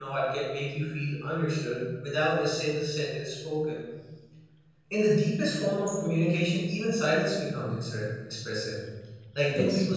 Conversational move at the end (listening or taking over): listening